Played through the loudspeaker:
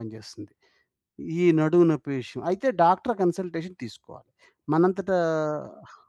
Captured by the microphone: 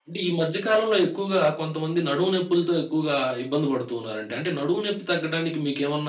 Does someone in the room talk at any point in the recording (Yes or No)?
Yes